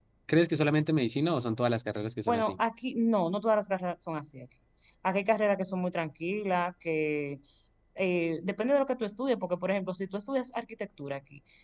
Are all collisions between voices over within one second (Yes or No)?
Yes